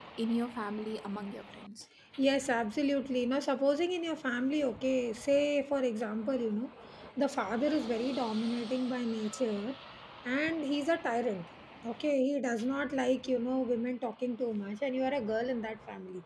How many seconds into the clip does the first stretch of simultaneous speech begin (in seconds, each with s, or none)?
none